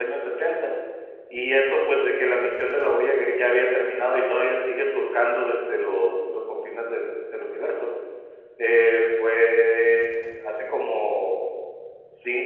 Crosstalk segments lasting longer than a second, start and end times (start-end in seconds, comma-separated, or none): none